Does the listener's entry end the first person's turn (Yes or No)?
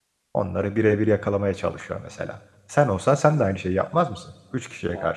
Yes